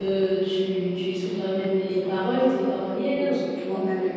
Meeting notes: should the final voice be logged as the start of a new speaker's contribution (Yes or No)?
Yes